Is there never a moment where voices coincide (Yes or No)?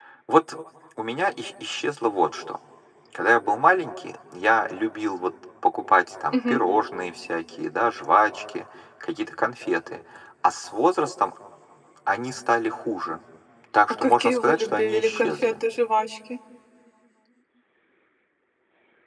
No